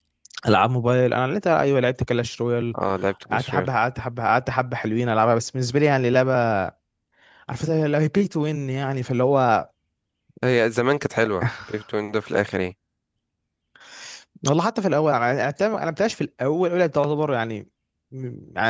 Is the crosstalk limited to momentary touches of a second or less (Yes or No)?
Yes